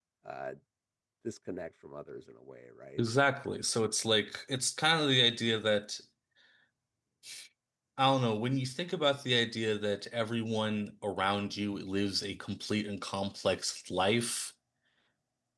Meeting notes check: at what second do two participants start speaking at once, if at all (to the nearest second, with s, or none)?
none